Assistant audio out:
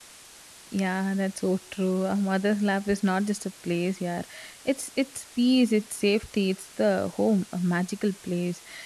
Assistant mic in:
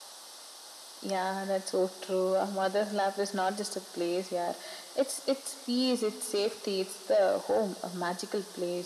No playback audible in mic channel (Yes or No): No